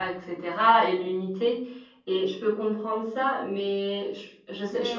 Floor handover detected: Yes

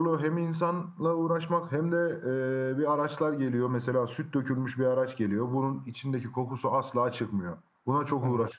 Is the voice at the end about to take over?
No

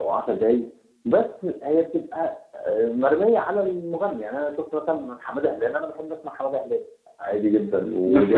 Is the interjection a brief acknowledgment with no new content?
No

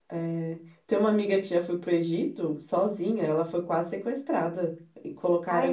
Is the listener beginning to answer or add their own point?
No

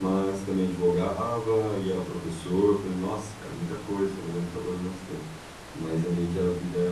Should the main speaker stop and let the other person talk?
No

